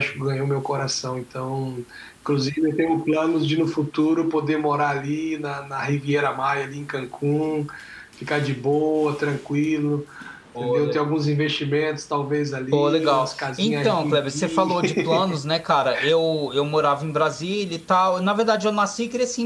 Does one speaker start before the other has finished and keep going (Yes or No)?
Yes